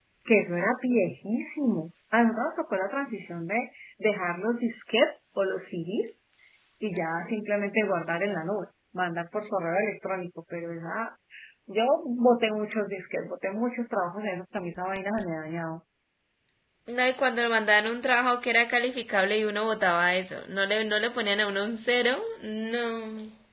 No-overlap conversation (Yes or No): Yes